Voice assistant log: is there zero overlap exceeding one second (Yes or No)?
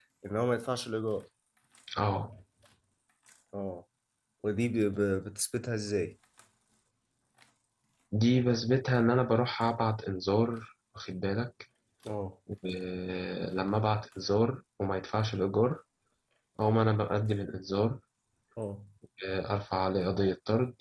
Yes